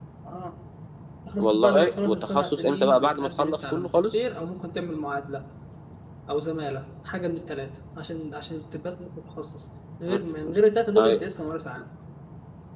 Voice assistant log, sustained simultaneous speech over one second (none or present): present